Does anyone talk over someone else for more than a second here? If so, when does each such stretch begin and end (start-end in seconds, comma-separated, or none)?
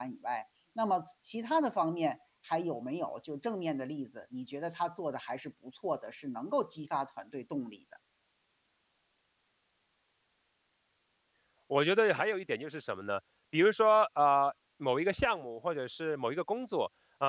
none